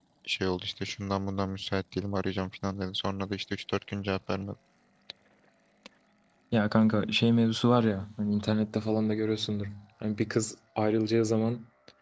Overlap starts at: none

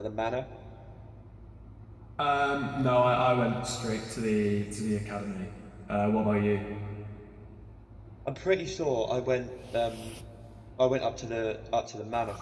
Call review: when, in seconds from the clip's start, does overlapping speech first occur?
none

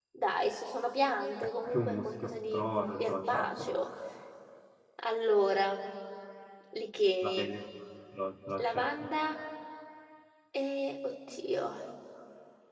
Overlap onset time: 1.6 s

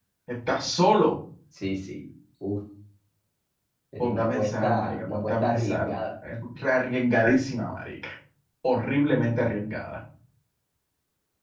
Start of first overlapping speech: 4.0 s

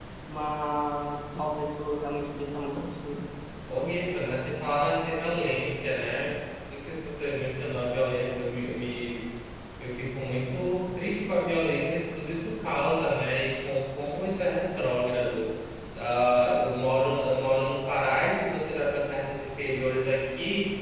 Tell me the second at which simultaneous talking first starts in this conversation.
none

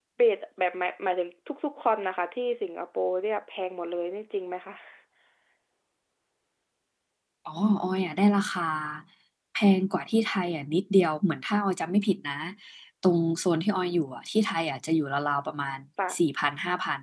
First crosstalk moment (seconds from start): none

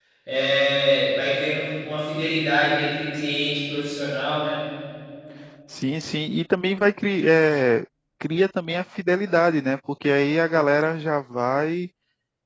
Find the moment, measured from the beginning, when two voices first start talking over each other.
none

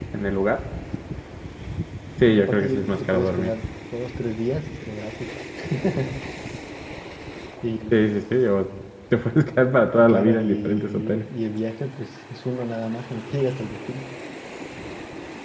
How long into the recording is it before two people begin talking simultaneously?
2.2 s

